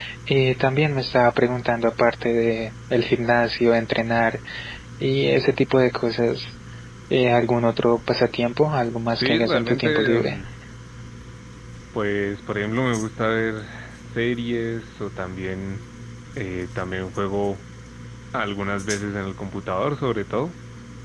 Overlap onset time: 9.1 s

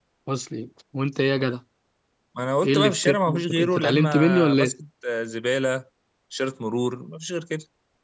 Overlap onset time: 2.6 s

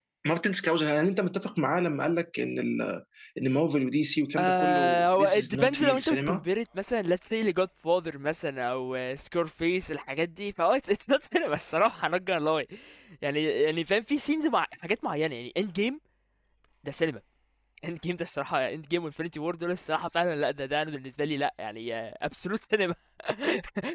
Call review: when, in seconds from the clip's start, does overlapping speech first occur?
4.4 s

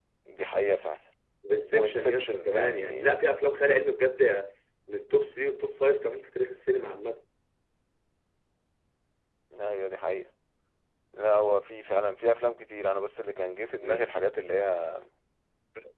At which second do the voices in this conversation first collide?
1.7 s

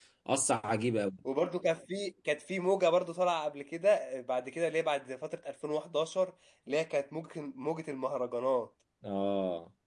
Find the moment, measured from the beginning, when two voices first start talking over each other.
none

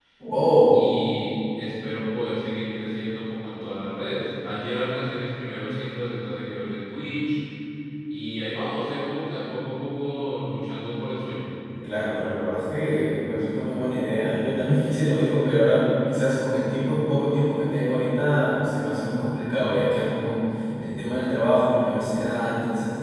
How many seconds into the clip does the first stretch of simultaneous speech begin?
none

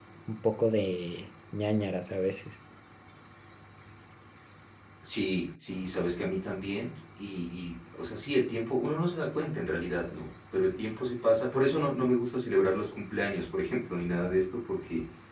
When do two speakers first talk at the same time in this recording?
none

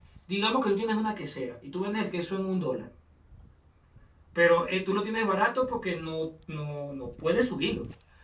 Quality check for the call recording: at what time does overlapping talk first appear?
none

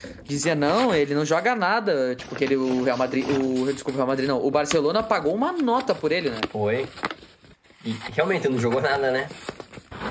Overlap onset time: none

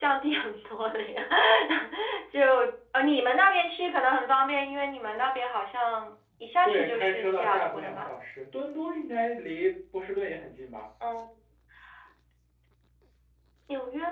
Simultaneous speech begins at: 6.7 s

